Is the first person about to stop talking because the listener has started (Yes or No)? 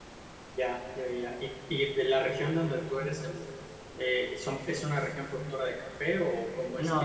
Yes